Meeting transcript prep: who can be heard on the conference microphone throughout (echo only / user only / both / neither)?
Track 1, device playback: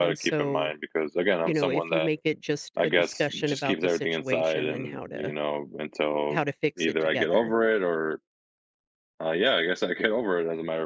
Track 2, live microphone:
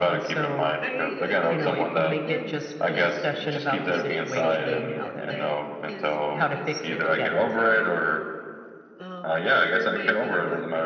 both